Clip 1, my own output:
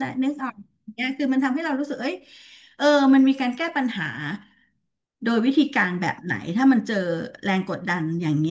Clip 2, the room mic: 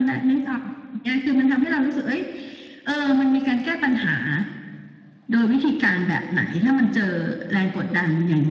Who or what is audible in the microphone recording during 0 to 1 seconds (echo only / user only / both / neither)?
echo only